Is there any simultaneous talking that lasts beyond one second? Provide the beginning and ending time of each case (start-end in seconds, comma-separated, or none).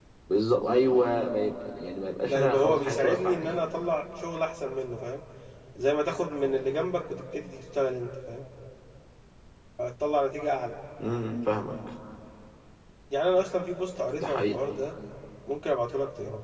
2.3-3.6